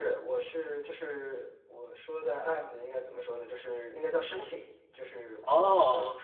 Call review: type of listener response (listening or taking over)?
listening